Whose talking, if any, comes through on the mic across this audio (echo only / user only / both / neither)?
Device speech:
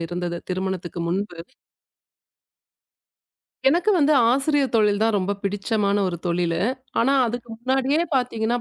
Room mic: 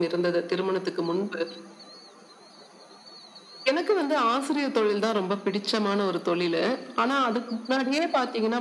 echo only